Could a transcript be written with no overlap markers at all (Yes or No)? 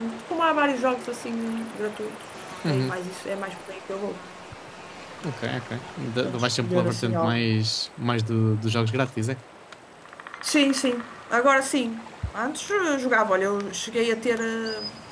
No